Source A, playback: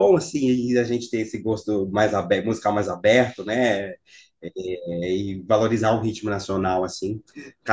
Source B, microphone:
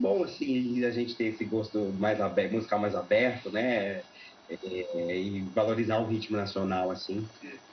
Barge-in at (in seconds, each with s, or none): none